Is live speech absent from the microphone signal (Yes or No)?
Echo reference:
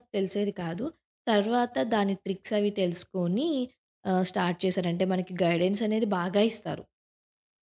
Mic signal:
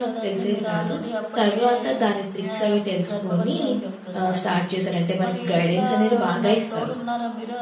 No